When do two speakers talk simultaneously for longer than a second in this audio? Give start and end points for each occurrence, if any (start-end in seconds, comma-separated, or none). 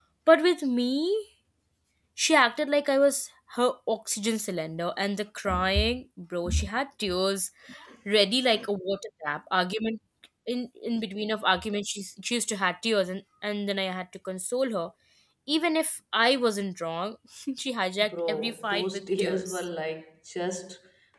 18.0-19.6